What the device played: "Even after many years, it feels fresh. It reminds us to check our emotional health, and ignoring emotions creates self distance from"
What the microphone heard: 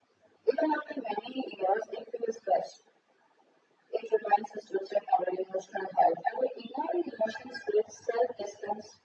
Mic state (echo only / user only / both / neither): echo only